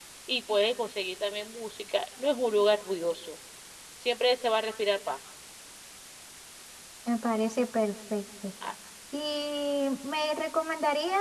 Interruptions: none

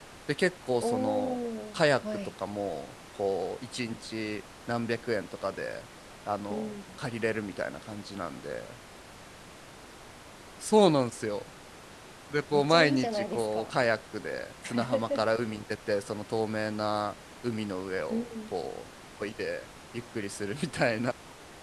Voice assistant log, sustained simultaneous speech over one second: present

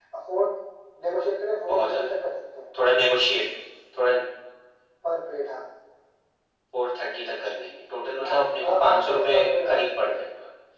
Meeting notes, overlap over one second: present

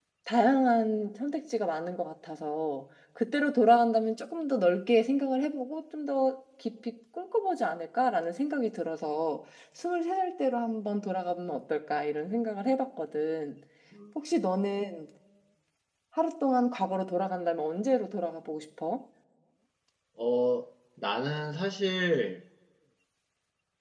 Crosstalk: none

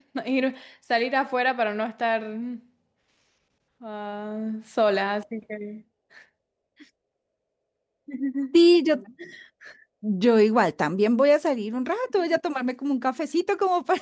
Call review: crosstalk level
none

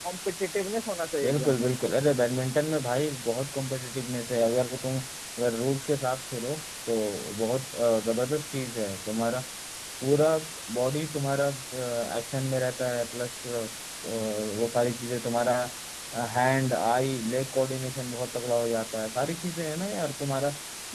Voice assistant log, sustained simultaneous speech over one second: none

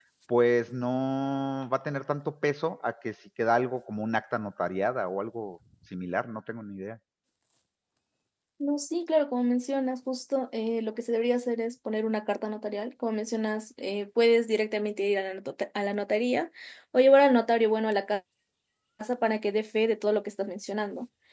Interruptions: none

